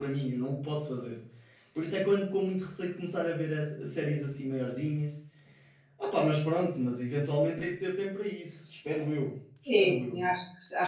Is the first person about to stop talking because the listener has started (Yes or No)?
Yes